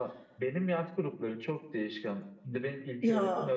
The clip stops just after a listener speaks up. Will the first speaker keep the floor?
Yes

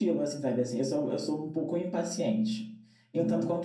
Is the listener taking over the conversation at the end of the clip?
No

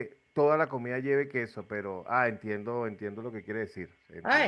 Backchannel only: No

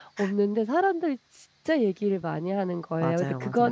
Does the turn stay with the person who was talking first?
Yes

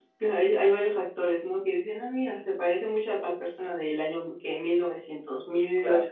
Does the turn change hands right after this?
No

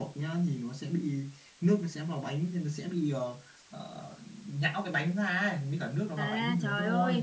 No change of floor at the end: No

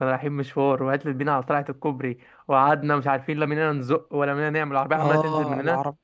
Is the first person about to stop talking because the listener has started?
Yes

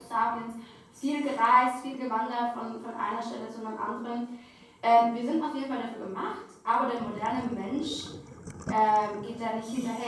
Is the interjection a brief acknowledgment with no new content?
Yes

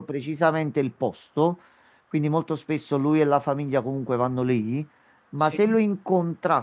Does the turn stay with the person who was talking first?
Yes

